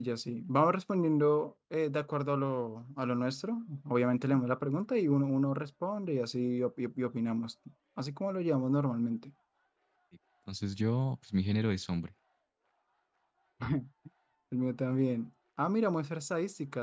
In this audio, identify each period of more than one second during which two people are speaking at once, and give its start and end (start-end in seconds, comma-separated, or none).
none